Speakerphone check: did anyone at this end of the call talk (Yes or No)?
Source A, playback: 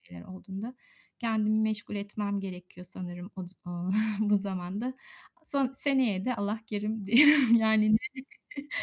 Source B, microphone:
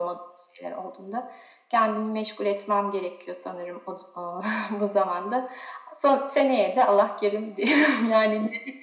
No